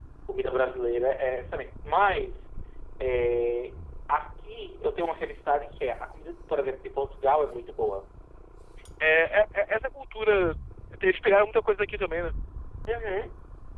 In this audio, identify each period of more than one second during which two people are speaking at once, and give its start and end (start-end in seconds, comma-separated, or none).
none